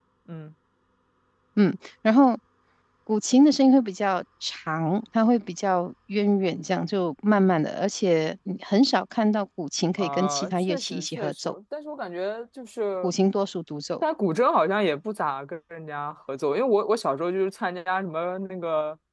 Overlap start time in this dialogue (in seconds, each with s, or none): 10.0 s